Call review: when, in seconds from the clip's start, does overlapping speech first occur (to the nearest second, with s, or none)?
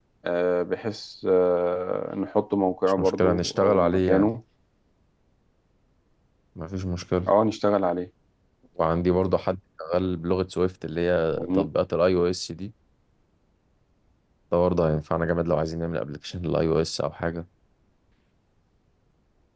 3 s